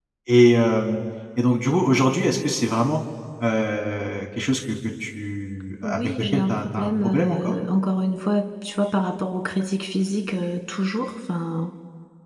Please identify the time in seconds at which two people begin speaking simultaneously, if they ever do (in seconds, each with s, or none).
5.8 s